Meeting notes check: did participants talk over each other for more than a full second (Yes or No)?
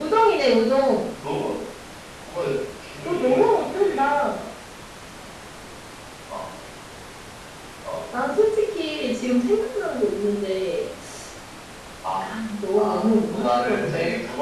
Yes